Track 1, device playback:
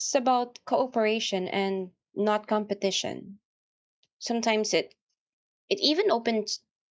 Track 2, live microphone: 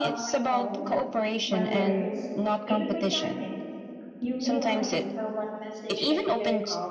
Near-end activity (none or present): present